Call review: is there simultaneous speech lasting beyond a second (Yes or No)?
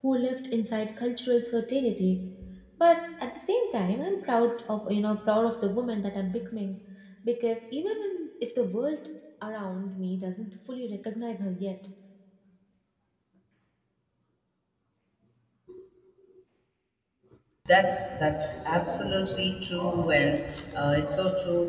No